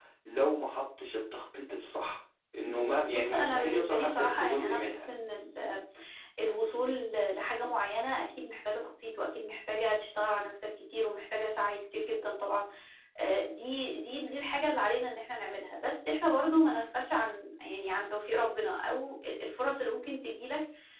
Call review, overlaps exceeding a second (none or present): present